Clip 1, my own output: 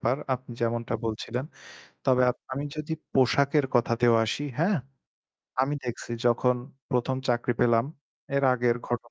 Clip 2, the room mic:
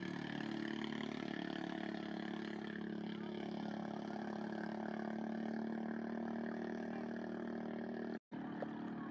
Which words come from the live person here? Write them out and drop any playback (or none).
none